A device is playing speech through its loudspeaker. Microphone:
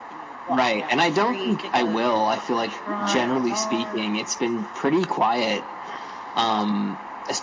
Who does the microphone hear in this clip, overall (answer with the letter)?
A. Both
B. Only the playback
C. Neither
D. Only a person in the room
A